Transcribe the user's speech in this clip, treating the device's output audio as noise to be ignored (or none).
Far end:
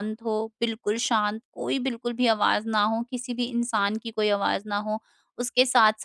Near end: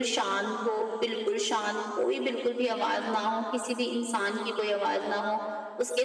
none